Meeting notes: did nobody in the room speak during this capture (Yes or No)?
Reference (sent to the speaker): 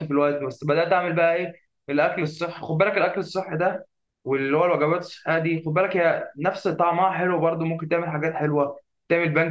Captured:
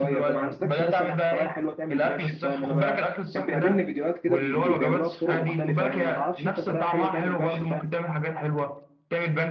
No